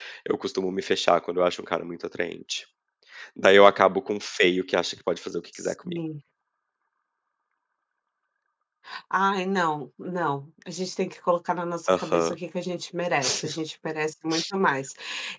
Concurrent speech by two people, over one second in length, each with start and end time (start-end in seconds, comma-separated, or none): none